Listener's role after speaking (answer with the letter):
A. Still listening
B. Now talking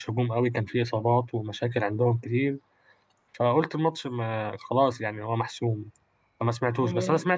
A